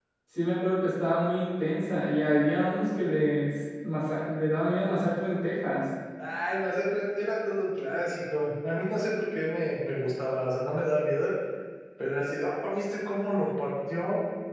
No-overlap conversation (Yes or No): Yes